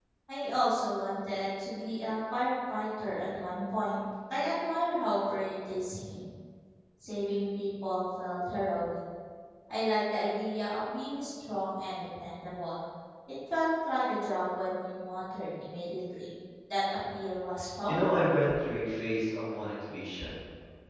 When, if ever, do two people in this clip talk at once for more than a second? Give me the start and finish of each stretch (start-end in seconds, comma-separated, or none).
none